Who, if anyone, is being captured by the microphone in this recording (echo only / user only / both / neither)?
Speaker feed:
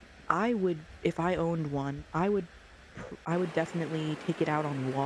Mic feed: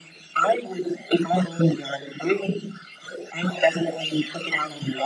echo only